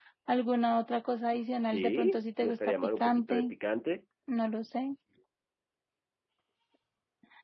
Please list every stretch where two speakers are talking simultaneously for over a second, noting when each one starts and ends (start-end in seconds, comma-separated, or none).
1.6-3.5